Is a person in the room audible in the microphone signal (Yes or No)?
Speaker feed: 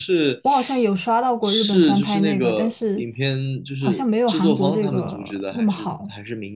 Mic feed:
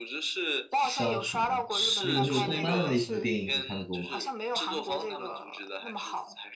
Yes